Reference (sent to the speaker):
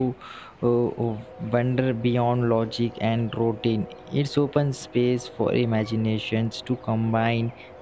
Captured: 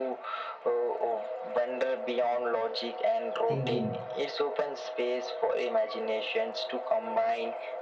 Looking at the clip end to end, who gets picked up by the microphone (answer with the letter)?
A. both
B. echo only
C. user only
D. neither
A